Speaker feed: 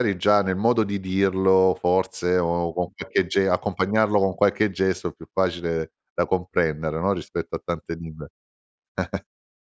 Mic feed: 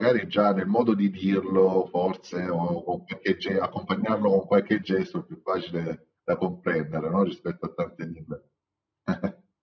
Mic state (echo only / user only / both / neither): echo only